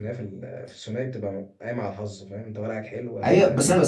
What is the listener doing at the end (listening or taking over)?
taking over